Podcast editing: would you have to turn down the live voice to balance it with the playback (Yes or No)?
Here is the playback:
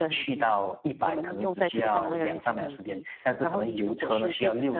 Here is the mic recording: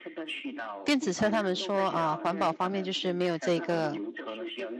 Yes